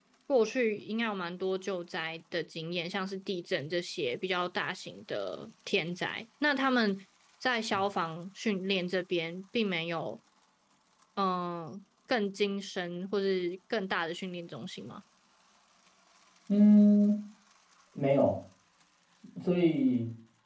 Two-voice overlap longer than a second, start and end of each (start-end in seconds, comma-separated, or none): none